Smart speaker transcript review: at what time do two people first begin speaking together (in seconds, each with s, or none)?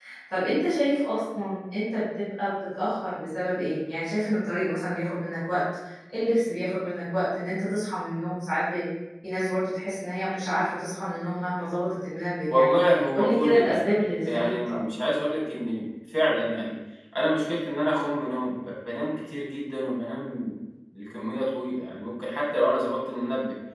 12.5 s